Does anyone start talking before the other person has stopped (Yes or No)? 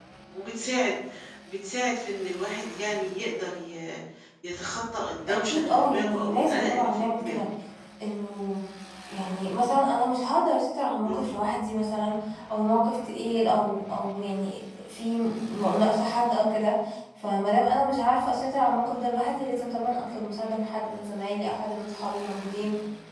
Yes